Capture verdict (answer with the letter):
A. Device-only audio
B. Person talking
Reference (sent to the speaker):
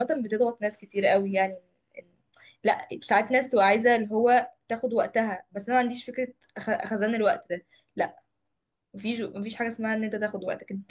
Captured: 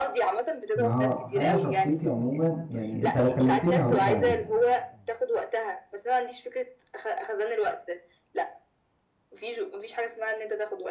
B